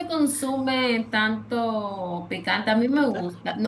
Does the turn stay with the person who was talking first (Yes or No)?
Yes